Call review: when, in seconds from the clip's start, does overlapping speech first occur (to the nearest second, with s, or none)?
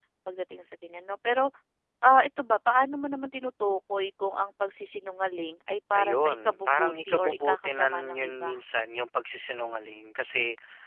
6 s